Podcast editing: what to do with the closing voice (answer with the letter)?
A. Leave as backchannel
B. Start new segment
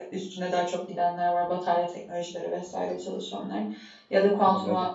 A